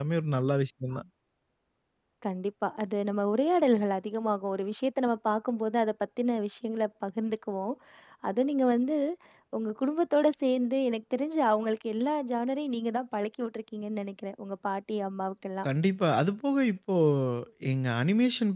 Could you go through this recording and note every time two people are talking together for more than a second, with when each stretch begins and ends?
none

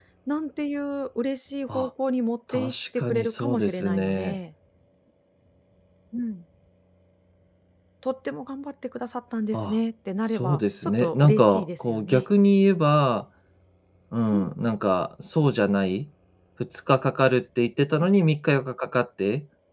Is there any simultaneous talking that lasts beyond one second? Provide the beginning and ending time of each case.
2.5-4.4, 10.3-12.2

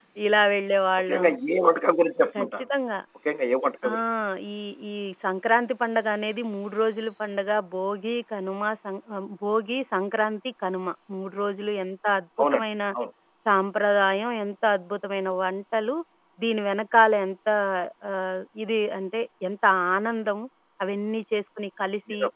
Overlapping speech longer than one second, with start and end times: none

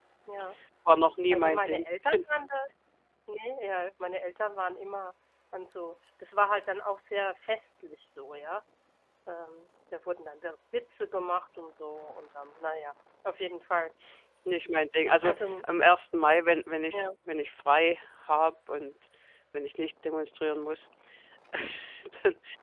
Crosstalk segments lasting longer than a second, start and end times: none

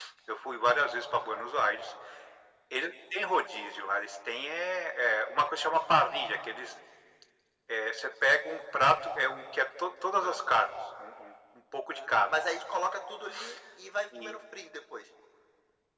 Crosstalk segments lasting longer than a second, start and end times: none

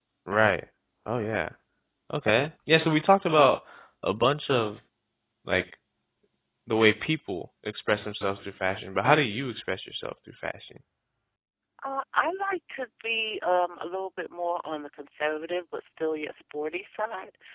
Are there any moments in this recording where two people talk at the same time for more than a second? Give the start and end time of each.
none

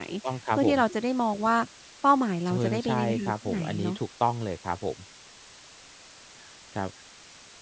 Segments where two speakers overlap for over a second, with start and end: 2.5-3.9

